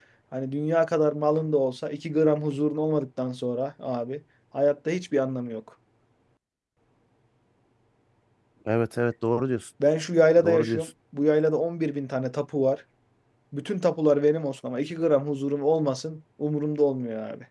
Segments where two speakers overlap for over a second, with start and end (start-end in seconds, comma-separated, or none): none